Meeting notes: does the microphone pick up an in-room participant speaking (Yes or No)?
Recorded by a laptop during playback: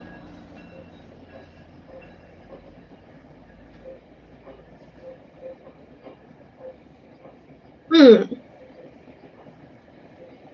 Yes